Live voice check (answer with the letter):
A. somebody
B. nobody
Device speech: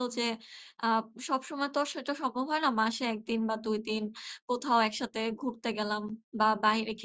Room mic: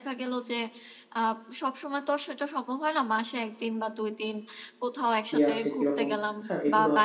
A